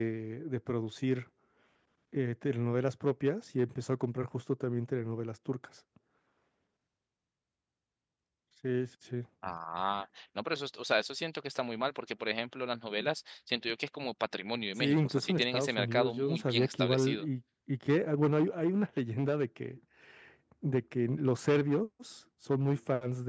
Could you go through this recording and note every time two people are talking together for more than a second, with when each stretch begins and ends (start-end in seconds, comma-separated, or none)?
14.8-17.2